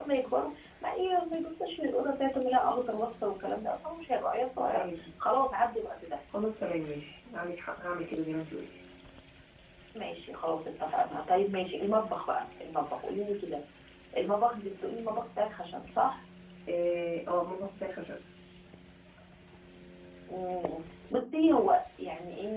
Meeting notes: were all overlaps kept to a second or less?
Yes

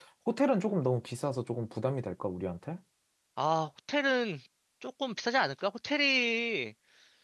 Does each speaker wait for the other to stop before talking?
Yes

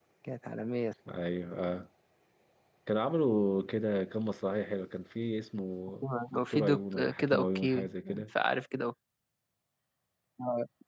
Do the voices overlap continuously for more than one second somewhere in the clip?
Yes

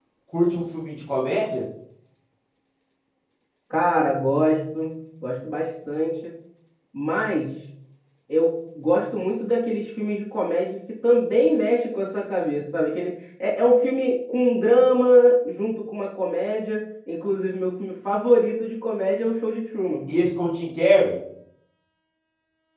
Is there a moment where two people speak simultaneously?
No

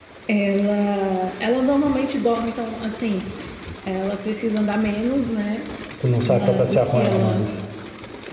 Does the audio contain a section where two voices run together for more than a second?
Yes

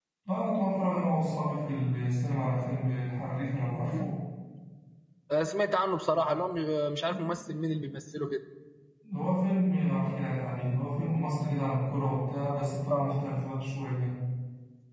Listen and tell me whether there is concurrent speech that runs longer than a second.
No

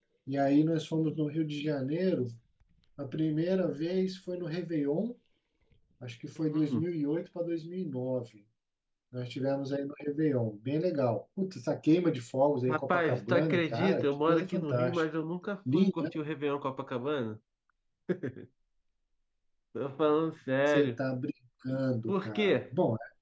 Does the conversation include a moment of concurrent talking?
Yes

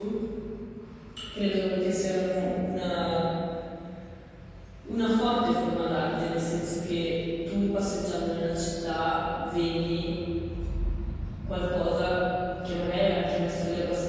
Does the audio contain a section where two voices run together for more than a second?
No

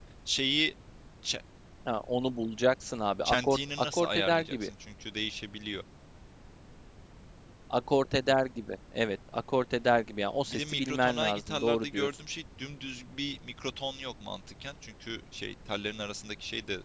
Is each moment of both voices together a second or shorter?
No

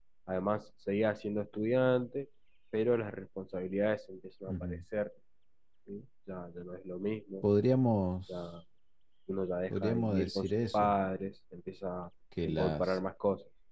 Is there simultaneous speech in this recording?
Yes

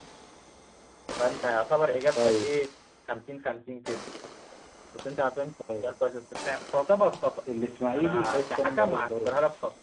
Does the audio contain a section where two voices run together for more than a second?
Yes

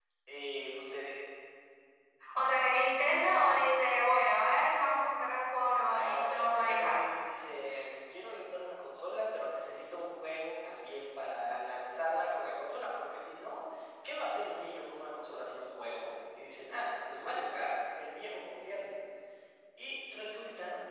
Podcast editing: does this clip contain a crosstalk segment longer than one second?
Yes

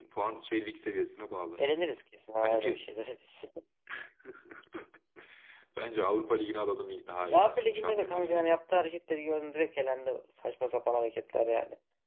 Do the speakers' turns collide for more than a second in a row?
Yes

